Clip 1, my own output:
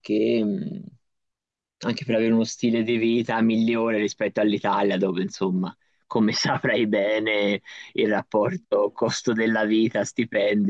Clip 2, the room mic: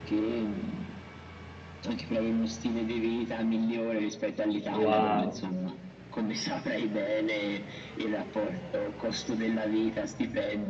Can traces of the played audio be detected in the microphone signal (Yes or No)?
Yes